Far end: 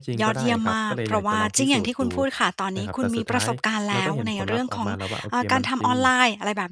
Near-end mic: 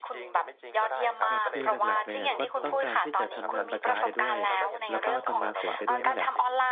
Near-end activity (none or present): present